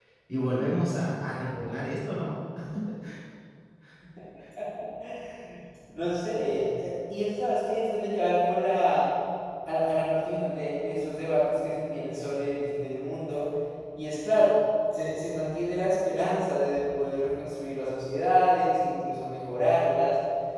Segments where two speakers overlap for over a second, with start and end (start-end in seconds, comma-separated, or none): none